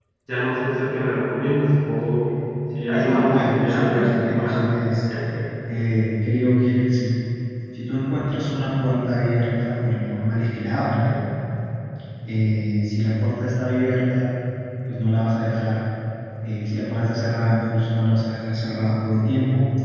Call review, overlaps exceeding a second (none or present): present